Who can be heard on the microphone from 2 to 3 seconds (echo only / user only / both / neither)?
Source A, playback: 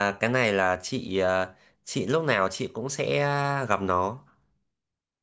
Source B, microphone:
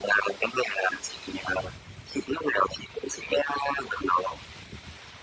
echo only